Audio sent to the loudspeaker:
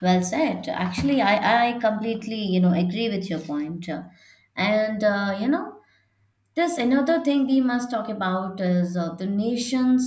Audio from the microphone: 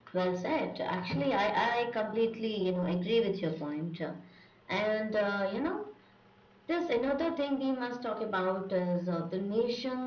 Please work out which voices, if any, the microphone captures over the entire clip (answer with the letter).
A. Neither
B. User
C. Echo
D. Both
C